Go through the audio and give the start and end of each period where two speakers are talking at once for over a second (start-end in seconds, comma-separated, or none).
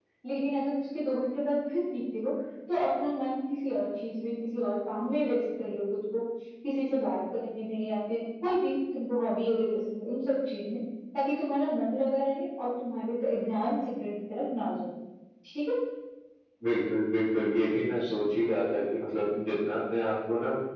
none